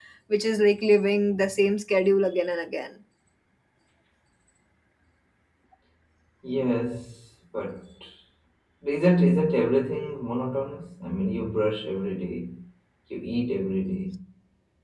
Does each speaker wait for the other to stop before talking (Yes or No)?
Yes